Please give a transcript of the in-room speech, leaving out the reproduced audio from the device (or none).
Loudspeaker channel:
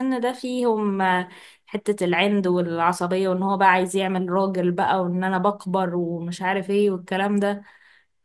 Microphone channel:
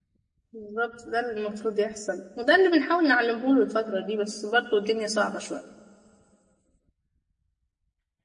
بالظبط ده اللي المفروض يحصل وده اللي بنحاول نعلمه له الفترة دي بس برضه الدنيا صعبة شوية